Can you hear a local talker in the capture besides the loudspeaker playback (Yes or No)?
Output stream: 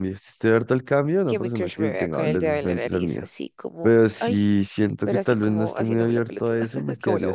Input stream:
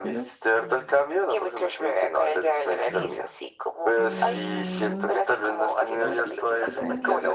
Yes